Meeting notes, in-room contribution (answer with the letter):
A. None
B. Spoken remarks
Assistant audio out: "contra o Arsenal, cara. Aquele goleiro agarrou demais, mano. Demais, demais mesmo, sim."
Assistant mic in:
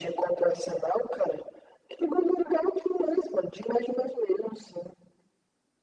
A